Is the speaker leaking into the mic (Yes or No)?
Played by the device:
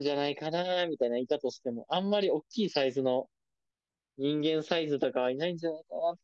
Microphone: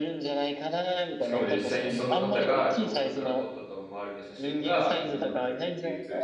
Yes